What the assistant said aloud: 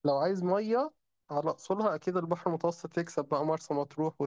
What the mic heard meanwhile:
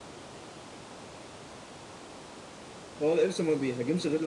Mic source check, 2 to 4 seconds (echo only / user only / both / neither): user only